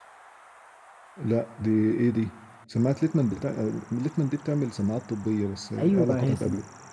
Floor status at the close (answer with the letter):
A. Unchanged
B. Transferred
B